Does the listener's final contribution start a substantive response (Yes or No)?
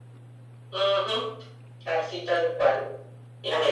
No